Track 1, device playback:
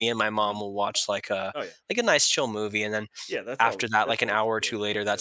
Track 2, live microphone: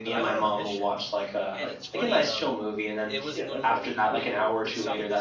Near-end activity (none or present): present